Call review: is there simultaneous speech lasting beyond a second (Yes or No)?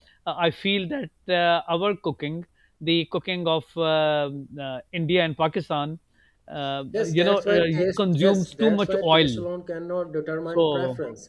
Yes